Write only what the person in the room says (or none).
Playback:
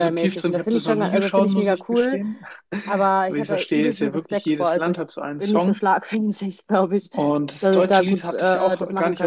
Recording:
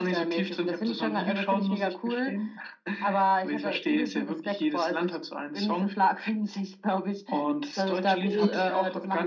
Mhm.